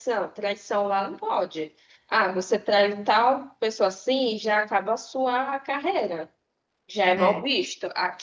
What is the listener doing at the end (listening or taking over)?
listening